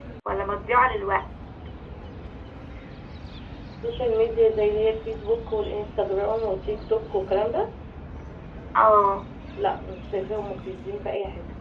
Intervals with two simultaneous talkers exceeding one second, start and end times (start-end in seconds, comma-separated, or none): none